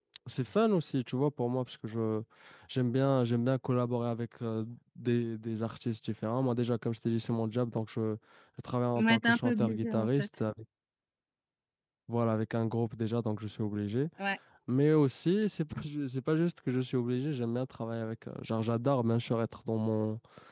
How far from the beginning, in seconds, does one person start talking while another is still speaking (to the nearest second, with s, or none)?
9 s